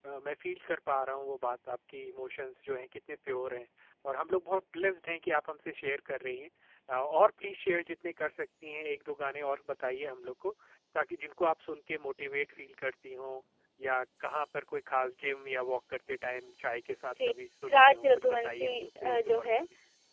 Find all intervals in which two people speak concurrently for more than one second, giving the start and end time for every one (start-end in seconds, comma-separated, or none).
17.7-19.6